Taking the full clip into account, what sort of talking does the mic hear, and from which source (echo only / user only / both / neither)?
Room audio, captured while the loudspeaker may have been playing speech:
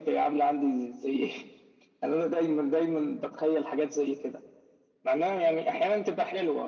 echo only